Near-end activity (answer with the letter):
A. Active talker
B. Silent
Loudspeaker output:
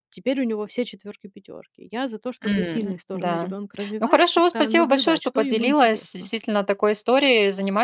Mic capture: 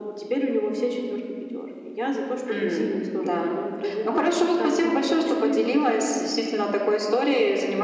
B